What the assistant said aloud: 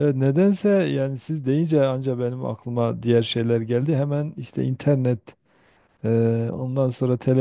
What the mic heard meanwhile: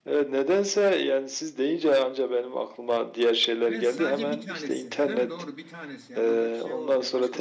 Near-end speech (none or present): present